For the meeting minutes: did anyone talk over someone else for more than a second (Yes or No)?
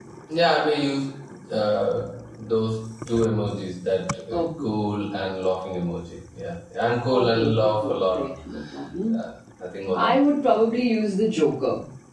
Yes